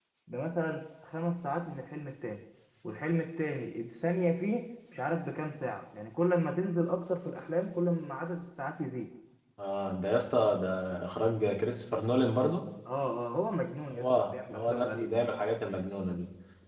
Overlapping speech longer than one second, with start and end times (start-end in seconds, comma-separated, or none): 13.9-15.2